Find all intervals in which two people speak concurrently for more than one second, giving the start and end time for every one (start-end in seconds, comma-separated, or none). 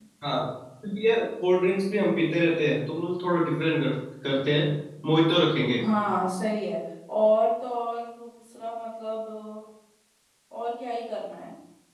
none